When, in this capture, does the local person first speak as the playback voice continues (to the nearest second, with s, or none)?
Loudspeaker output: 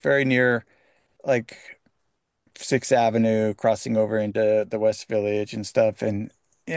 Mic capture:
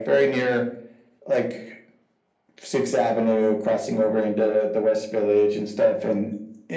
none